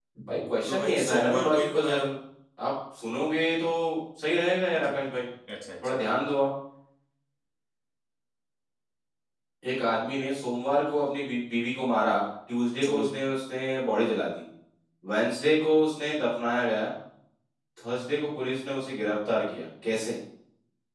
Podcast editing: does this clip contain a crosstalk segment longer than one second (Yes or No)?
Yes